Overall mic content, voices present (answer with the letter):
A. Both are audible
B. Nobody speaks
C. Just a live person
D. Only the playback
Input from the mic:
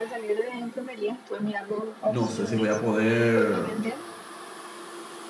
A